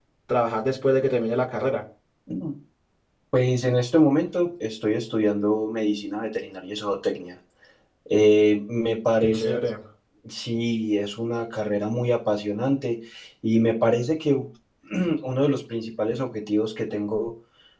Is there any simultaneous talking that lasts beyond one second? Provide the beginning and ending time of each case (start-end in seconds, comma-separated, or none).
none